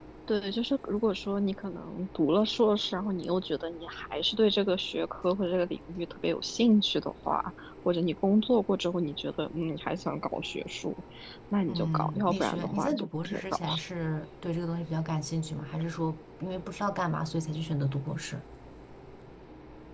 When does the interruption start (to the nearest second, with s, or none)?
12 s